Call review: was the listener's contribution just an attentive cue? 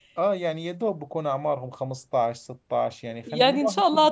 No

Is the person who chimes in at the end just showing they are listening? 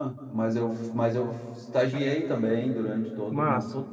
Yes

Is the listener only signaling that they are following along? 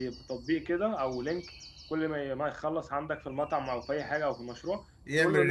Yes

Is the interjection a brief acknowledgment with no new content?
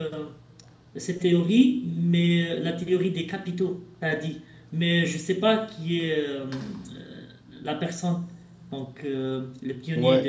No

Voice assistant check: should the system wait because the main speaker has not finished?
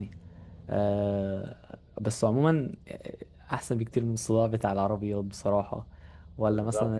Yes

